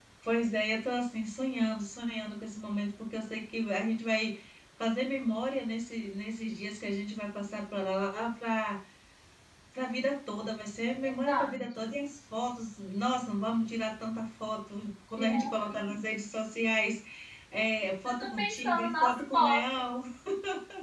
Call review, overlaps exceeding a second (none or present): present